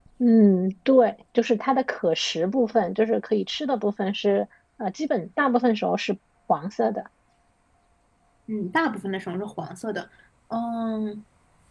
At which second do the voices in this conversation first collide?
none

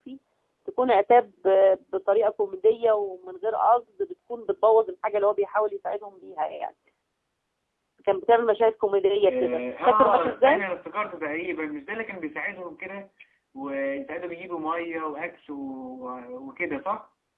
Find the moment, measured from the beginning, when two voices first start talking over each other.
9.3 s

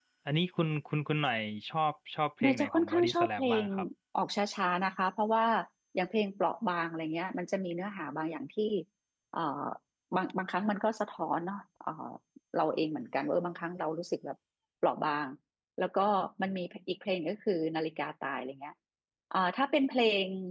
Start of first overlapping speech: 2.4 s

